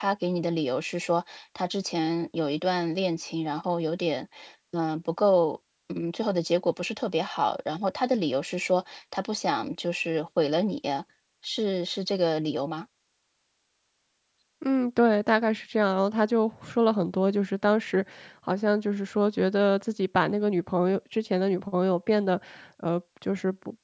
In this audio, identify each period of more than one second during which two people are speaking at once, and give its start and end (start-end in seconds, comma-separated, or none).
none